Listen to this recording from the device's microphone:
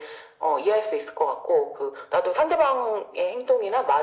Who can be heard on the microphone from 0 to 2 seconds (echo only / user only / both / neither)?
echo only